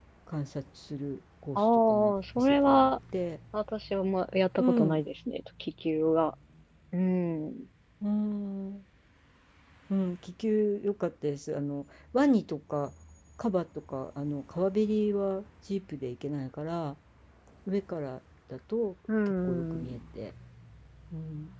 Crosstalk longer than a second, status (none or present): present